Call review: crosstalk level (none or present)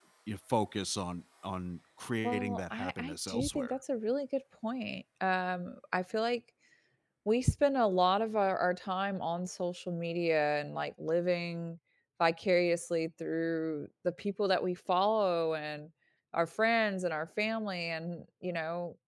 present